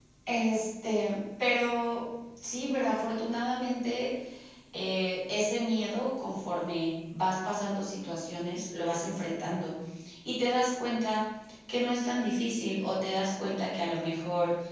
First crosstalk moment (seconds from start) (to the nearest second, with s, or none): none